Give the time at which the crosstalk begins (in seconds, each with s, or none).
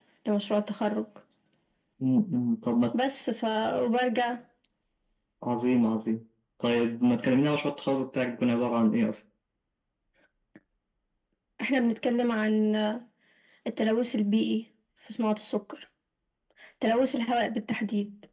none